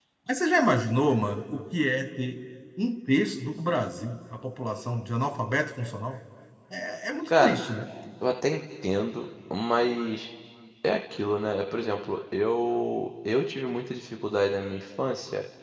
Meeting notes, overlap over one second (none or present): none